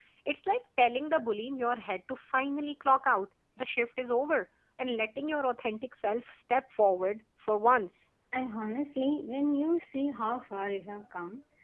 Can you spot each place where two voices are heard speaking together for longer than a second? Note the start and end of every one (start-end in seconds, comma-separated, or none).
none